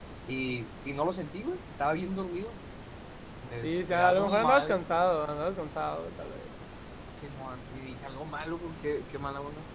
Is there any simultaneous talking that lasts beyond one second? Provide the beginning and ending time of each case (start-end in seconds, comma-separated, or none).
3.6-4.8